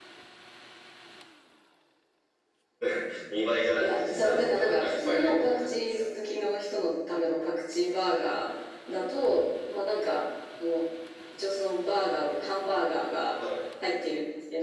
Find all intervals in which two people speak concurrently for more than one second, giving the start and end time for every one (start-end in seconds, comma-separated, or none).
3.8-6.0